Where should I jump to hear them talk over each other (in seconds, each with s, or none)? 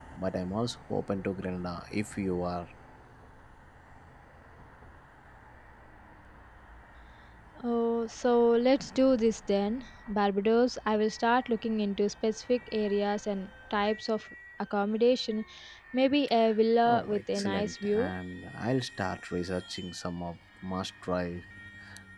16.9 s